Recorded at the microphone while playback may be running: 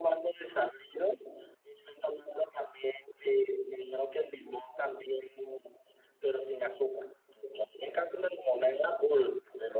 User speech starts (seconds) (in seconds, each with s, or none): none